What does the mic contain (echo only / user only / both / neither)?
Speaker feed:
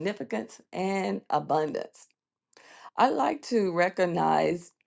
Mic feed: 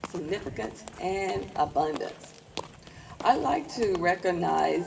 echo only